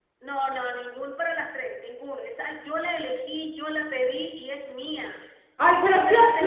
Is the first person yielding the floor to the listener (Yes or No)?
Yes